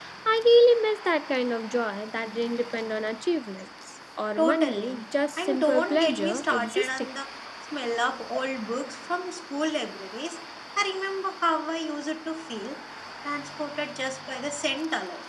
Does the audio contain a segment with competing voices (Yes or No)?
Yes